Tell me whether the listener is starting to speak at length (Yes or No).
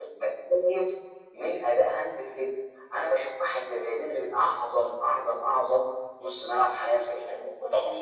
No